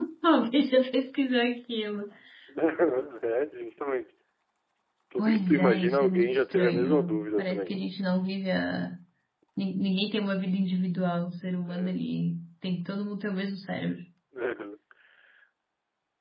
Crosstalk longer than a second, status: present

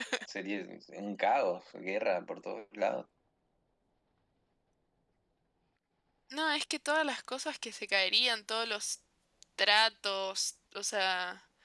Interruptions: none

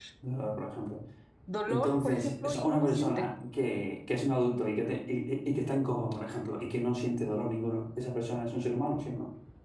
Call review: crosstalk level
present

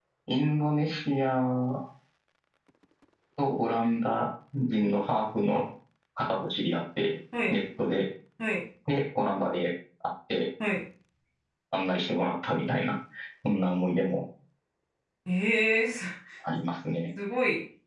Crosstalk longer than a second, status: none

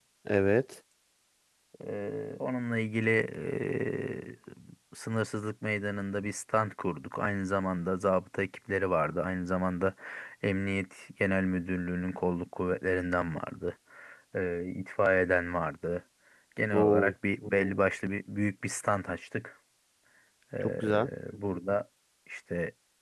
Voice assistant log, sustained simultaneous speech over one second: none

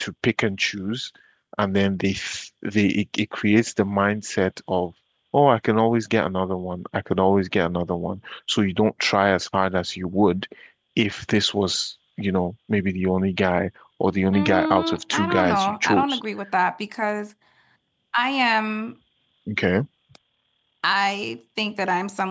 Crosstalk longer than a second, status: present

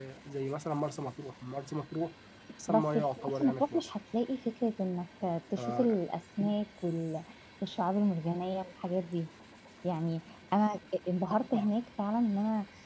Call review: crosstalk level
present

